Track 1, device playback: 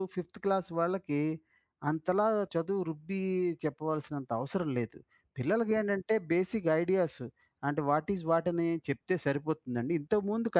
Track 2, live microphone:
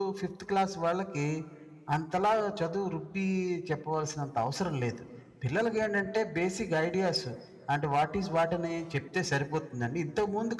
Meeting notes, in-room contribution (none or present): none